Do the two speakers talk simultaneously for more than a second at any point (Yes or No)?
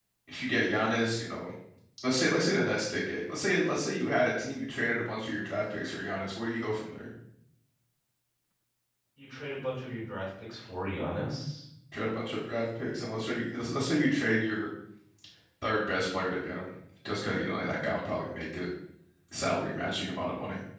No